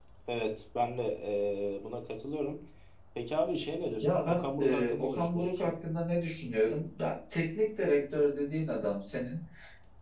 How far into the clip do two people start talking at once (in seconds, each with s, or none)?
4.0 s